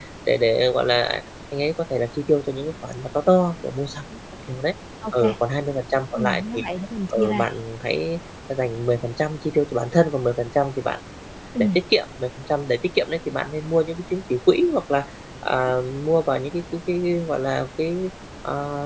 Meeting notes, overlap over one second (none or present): none